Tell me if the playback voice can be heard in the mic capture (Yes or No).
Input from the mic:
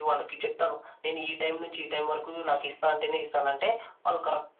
Yes